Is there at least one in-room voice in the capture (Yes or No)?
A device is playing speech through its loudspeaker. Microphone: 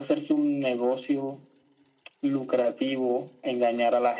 No